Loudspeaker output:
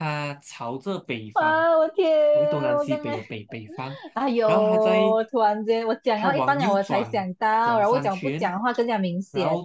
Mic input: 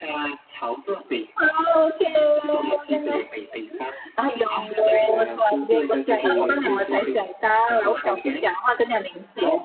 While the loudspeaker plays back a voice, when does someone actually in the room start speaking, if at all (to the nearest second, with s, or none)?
5 s